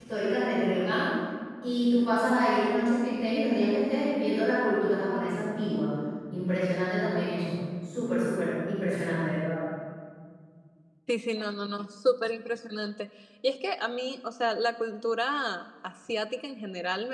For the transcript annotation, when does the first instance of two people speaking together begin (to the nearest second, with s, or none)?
none